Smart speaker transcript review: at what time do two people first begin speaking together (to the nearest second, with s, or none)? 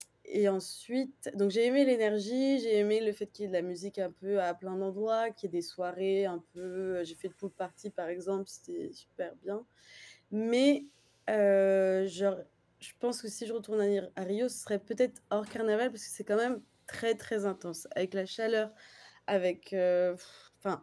none